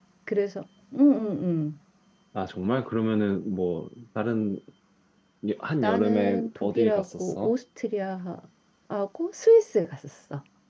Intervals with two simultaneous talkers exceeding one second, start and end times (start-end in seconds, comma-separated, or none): 5.8-7.5